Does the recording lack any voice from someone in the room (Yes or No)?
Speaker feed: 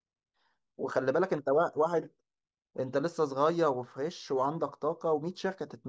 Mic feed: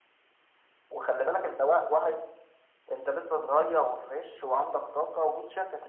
Yes